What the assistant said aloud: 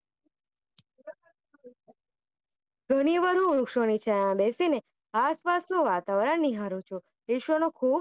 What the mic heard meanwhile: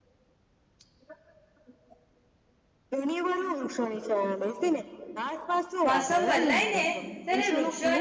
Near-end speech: present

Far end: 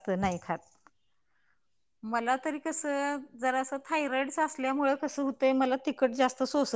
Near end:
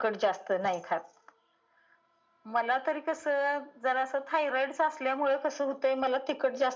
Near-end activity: none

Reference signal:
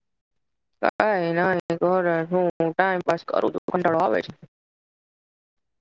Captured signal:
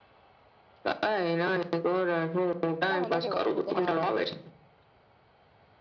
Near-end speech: present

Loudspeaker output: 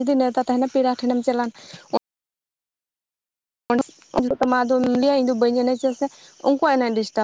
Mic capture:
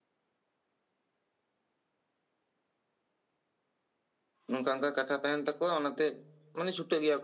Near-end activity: present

